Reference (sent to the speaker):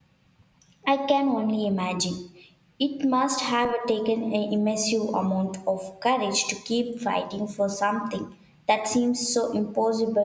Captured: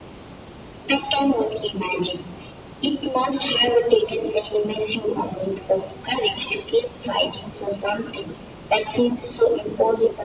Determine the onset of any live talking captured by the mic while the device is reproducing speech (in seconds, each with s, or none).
none